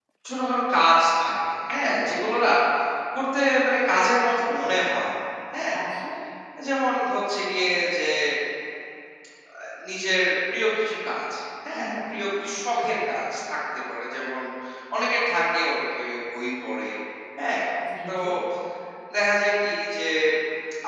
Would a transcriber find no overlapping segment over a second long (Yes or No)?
Yes